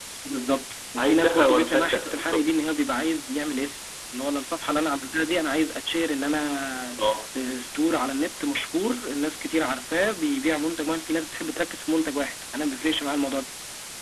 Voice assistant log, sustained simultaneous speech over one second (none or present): present